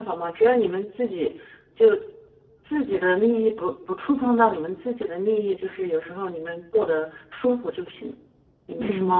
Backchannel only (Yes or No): No